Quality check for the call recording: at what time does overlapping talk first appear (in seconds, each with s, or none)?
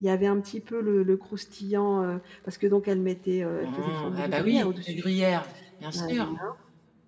3.6 s